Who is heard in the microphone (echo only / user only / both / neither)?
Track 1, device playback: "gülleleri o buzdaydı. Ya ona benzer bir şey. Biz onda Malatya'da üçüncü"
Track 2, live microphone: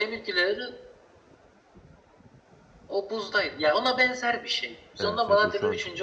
both